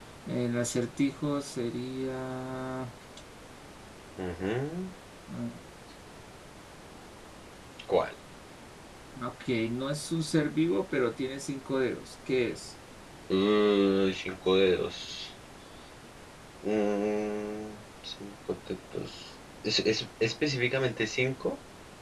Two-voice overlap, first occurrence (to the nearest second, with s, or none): none